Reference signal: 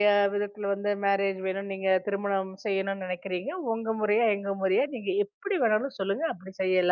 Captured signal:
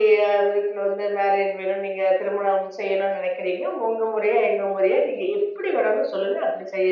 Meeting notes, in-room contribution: none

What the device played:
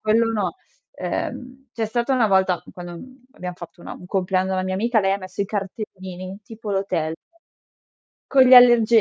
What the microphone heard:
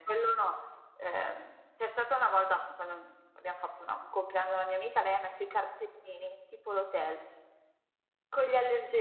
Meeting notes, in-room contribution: none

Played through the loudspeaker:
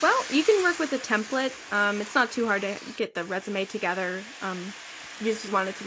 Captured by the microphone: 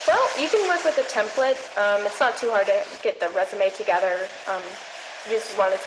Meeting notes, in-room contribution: none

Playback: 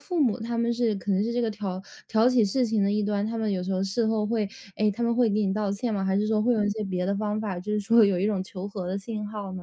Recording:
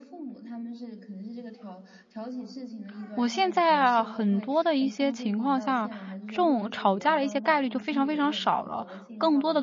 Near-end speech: present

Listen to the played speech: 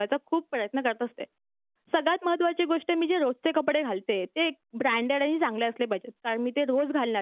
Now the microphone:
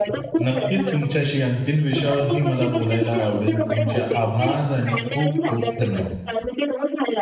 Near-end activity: present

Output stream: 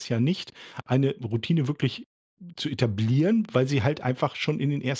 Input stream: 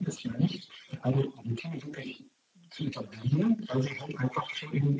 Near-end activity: none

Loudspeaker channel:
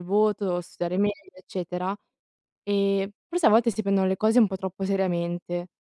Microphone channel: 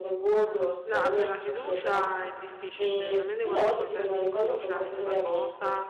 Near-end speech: present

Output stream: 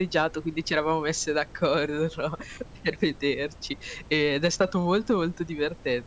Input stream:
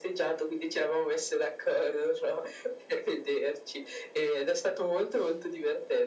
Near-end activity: none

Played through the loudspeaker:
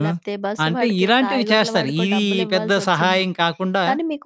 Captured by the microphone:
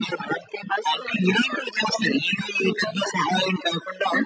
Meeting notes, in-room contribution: none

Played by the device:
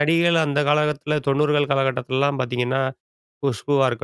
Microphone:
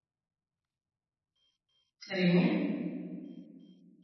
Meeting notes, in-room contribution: present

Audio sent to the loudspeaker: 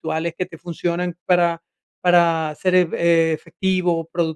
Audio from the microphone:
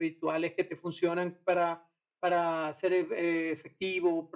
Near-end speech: none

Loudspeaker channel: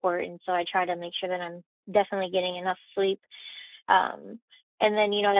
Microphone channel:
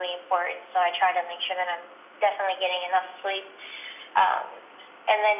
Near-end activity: none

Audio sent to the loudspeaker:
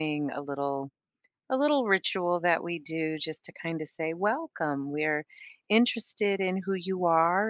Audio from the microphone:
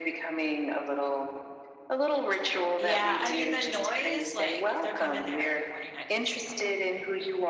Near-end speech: present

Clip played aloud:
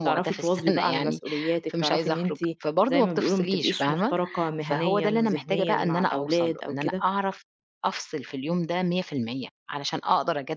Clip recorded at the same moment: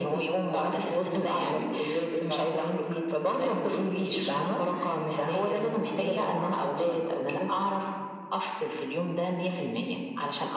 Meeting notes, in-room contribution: none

